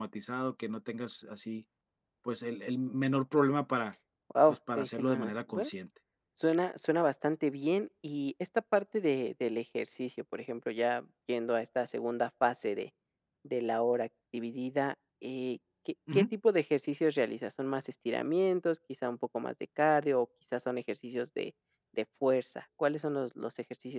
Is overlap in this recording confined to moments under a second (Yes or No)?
No